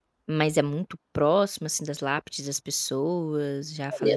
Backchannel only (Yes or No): No